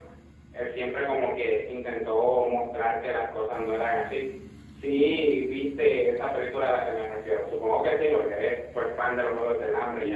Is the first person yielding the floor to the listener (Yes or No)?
Yes